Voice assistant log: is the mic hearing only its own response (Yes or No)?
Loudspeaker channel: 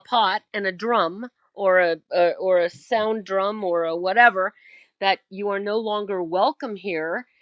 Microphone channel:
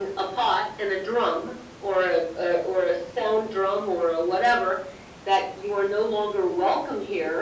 Yes